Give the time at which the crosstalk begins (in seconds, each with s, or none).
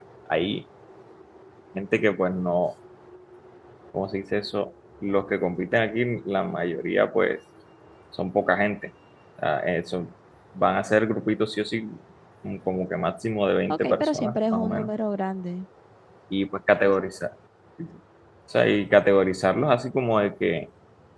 13.7 s